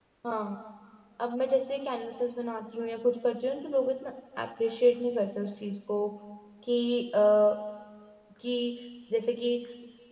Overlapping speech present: No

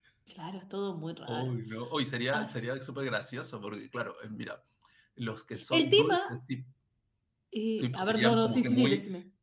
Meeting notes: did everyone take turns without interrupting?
No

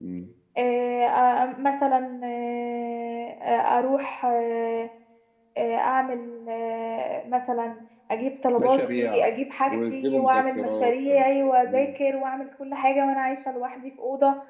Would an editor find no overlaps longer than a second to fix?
No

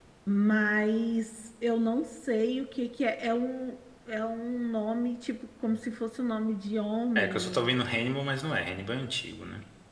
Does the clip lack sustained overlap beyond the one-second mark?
Yes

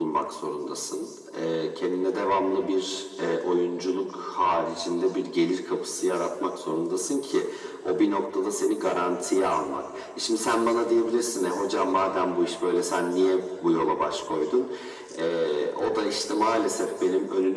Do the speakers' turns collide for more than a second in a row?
No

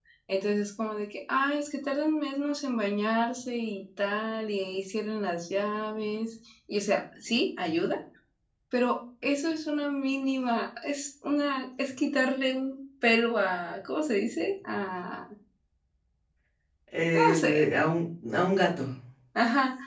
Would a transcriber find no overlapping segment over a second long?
Yes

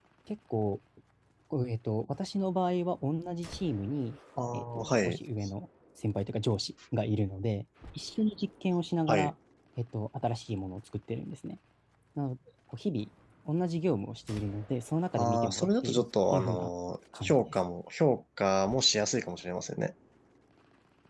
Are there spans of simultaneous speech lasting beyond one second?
Yes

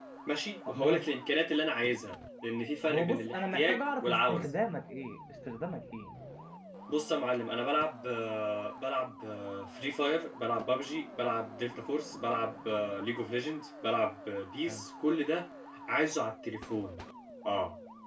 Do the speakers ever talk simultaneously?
Yes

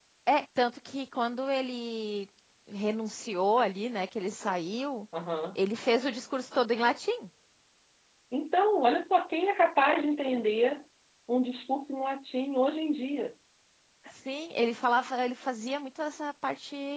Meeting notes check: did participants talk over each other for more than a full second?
No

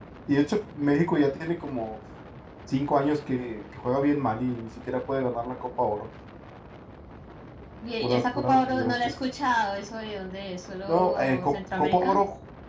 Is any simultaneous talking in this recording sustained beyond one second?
Yes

